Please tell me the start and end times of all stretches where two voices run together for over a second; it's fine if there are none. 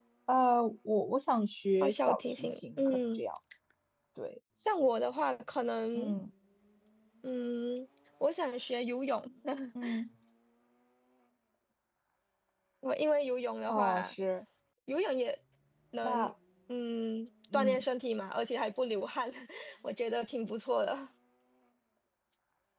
1.8-3.2

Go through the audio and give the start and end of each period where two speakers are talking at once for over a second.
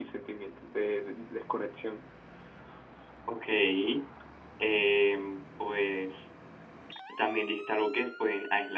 none

